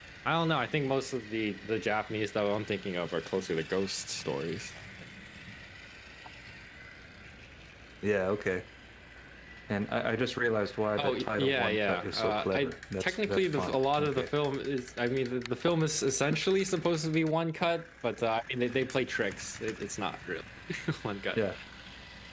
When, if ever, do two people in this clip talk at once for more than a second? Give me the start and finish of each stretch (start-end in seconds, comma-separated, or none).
11.0-14.3